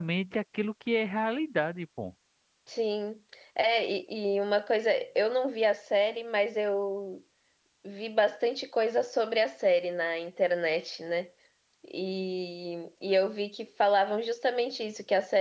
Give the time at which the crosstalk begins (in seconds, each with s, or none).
none